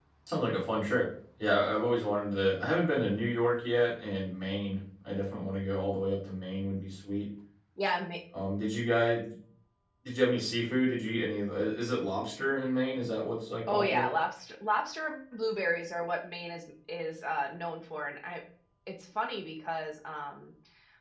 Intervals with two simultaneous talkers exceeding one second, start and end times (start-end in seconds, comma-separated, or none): none